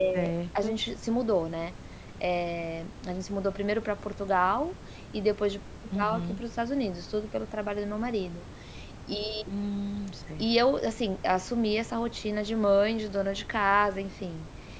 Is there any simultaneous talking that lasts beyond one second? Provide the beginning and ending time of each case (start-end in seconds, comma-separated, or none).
none